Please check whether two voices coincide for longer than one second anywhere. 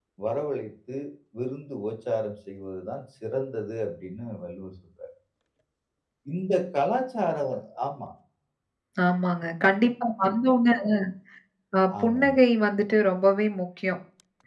No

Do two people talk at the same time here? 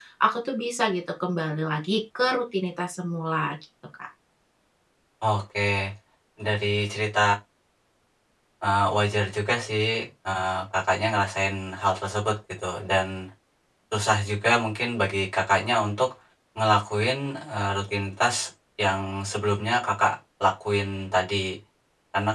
No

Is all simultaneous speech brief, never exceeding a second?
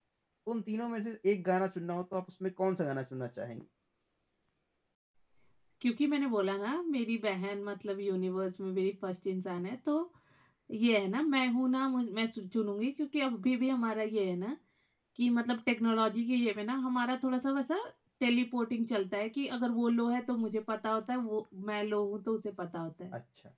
Yes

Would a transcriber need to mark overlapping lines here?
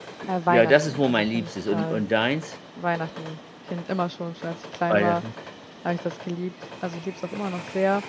Yes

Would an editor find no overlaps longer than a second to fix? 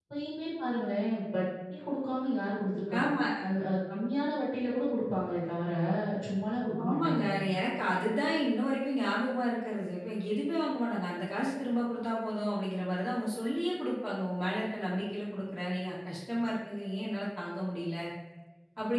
Yes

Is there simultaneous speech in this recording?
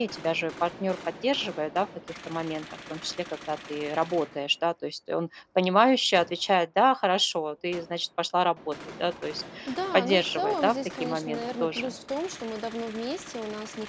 Yes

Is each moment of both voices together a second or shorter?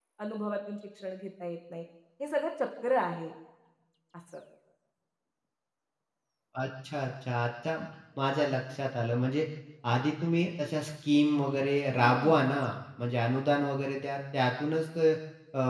Yes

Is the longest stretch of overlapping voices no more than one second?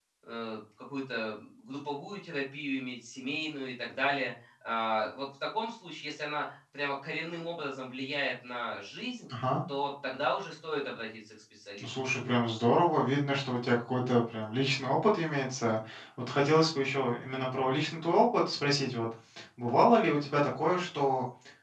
Yes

